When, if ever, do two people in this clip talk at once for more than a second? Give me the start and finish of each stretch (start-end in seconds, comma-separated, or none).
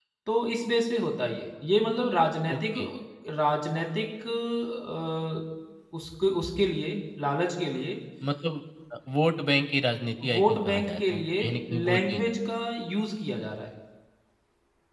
10.3-12.2